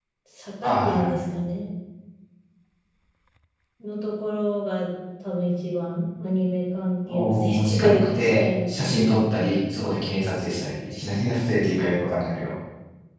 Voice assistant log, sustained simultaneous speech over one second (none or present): present